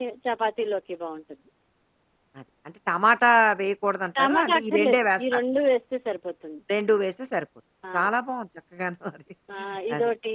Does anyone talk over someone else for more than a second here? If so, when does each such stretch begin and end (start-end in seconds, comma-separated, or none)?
4.2-5.4